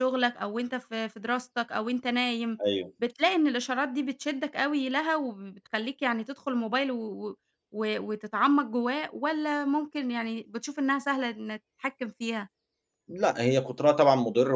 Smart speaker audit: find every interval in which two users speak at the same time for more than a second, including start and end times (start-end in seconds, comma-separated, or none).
none